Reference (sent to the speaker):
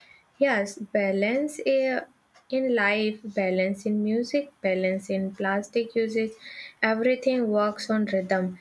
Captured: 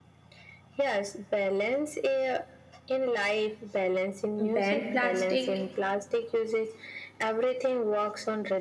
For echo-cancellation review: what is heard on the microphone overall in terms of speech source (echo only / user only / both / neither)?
both